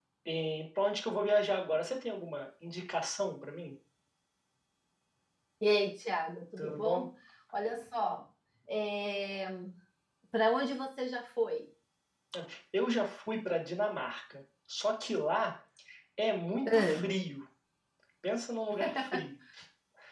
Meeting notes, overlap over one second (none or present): none